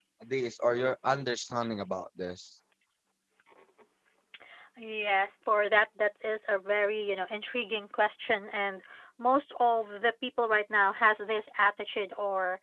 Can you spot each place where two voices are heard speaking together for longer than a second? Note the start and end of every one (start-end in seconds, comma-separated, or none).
none